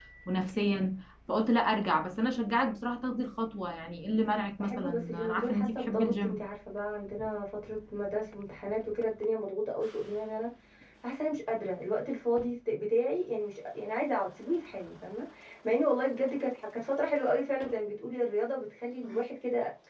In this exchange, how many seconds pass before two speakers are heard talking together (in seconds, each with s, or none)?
4.6 s